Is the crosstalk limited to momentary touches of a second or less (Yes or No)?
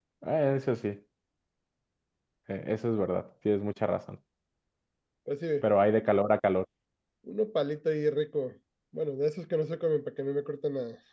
Yes